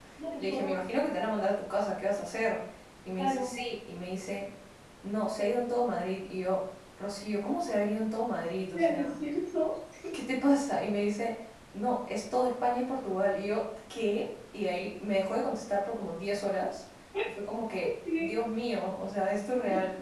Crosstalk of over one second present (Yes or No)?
No